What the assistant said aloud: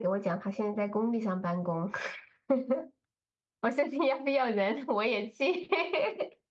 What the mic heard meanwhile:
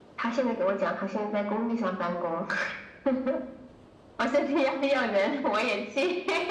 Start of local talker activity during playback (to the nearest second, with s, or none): none